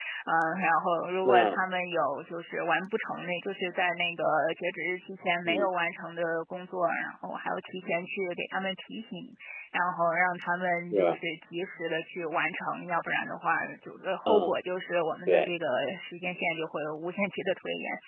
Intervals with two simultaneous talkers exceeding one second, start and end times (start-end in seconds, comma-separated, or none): none